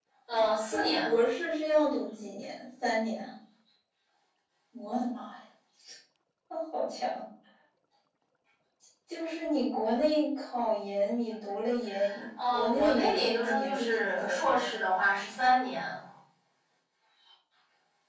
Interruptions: present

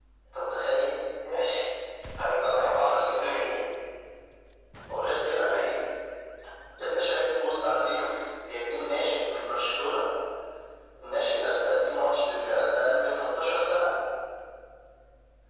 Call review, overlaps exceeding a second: present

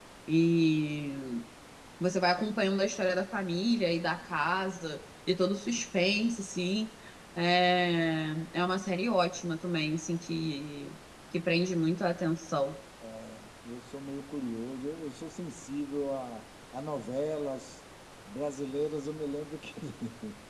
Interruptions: none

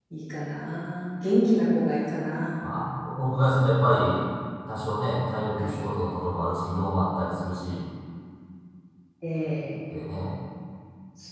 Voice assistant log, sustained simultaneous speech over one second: none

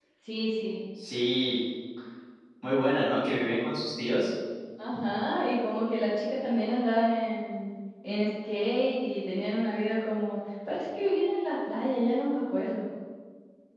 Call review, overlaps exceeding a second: none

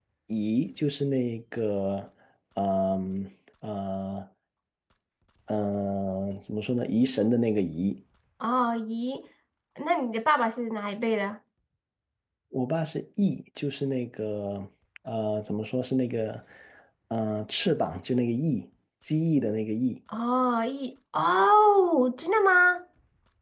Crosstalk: none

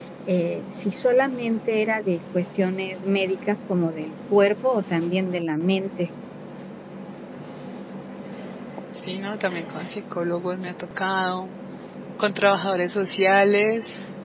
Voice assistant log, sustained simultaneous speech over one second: none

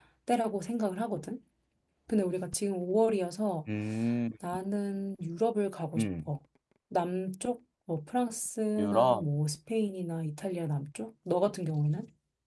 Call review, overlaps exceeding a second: none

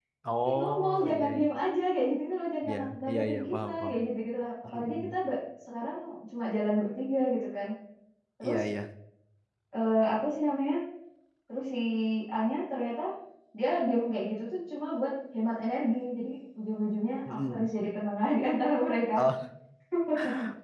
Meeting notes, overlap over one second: present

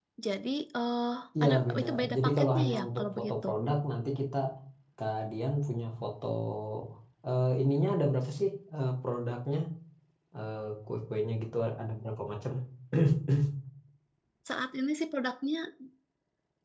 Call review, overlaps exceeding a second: present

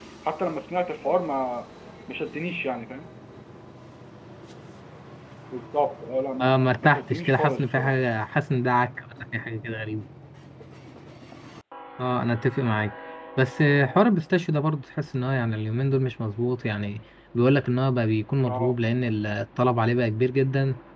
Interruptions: present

